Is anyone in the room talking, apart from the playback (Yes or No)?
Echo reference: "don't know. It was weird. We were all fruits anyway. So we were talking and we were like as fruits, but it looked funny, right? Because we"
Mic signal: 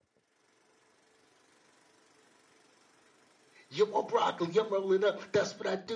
Yes